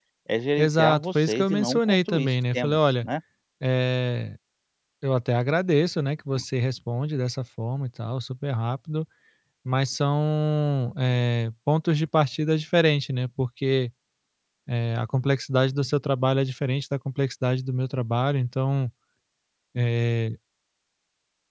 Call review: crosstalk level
present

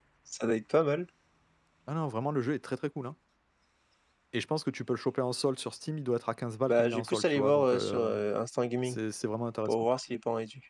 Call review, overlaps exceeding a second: present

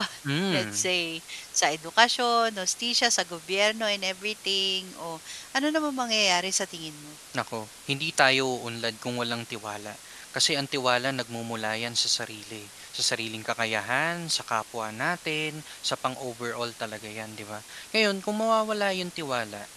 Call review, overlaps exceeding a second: none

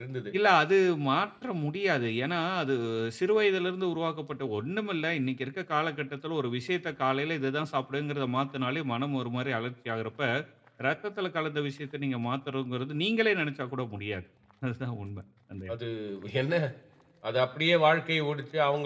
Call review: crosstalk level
none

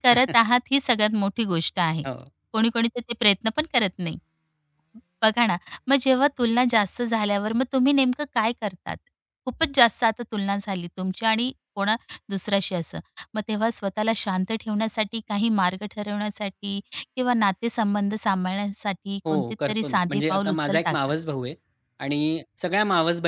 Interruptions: present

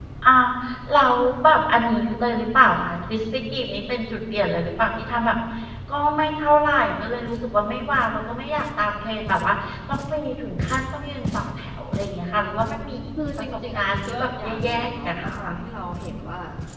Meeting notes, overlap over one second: present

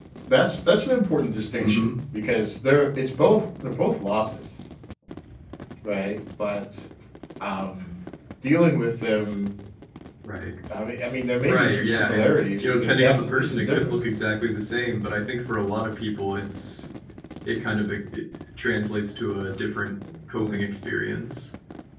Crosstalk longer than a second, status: present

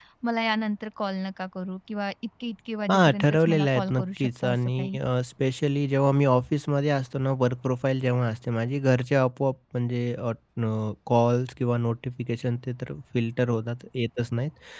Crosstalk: present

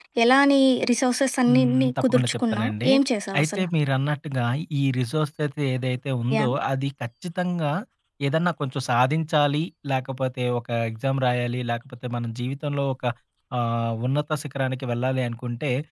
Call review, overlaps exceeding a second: present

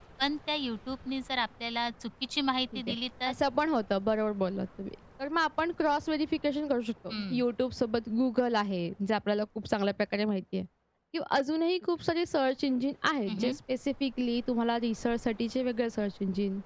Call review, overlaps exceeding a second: none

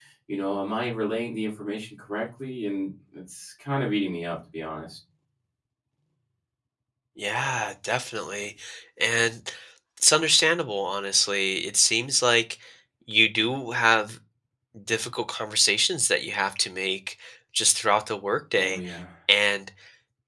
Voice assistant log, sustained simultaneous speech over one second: none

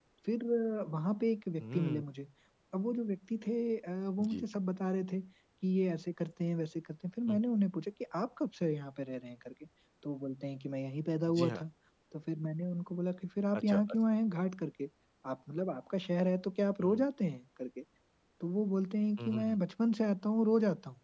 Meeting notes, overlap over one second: none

